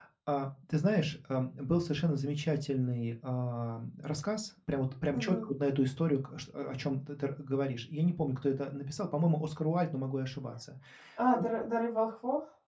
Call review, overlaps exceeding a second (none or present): none